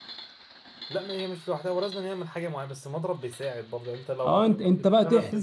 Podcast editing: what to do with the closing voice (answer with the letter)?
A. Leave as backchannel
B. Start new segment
B